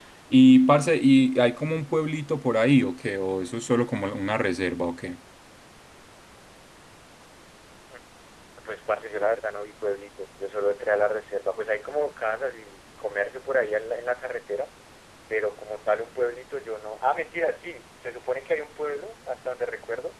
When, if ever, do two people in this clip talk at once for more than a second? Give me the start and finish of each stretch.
none

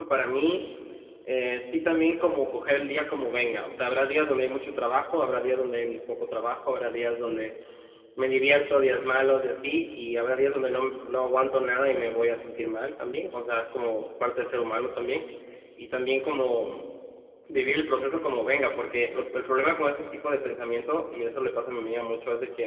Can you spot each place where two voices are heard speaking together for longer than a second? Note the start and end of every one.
none

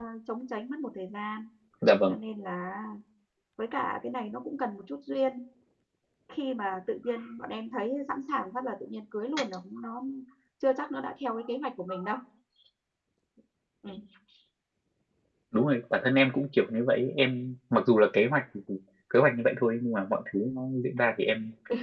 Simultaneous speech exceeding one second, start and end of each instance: none

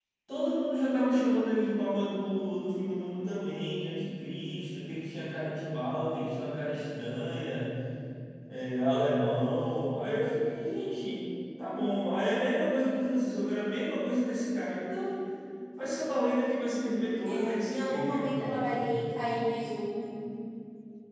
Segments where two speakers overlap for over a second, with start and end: 17.2-18.9

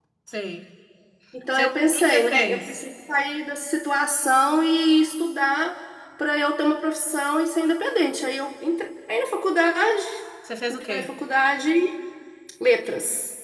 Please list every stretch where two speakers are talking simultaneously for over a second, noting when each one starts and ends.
1.5-2.8

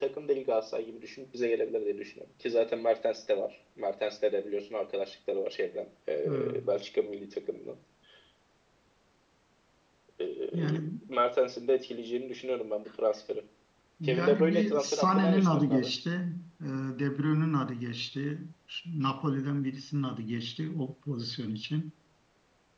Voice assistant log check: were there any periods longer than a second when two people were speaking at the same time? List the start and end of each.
14.0-15.9

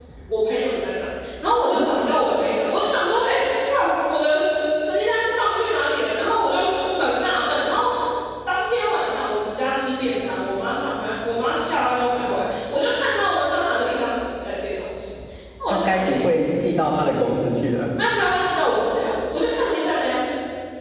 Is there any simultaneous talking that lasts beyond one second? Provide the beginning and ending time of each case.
none

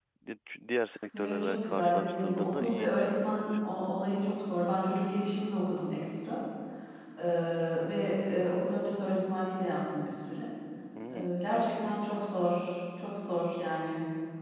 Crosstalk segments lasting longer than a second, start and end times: 1.2-3.5

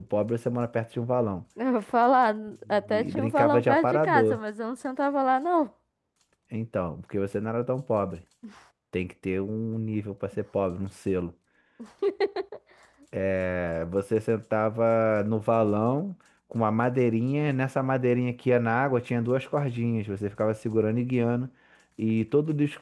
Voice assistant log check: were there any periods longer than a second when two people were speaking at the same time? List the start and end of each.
2.9-4.4

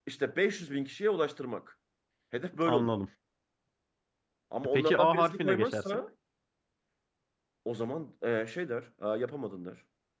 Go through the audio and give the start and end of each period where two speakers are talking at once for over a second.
4.6-6.0

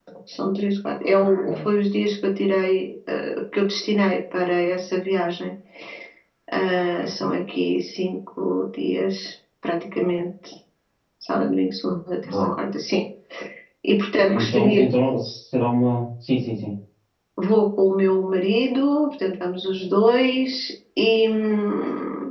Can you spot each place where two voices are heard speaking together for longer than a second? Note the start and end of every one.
none

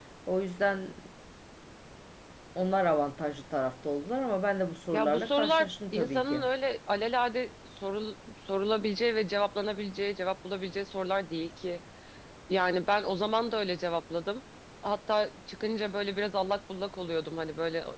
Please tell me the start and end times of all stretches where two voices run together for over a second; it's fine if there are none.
4.9-6.4

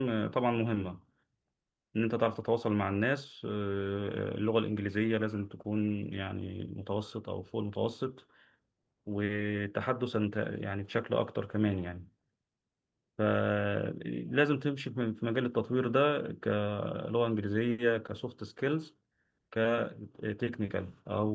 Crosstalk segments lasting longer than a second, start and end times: none

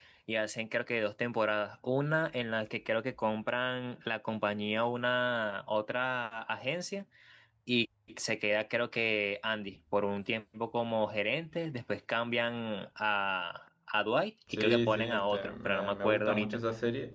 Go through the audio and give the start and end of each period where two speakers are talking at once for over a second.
14.5-16.6

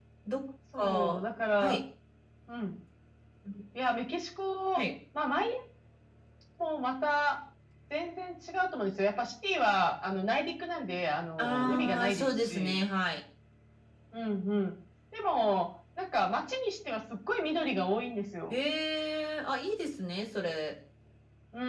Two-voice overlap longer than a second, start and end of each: 11.4-12.7

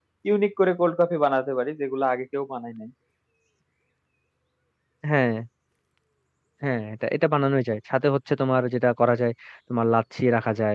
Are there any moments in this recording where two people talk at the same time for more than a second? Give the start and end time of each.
none

